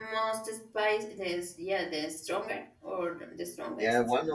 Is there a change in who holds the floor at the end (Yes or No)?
Yes